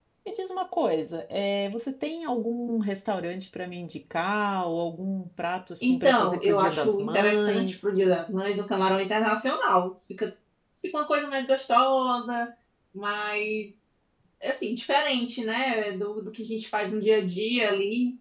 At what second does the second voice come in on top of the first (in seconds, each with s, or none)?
5.8 s